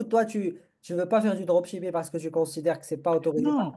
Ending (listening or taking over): taking over